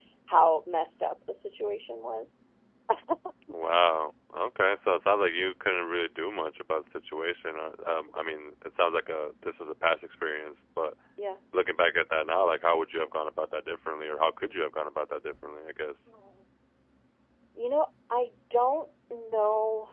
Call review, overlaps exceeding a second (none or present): none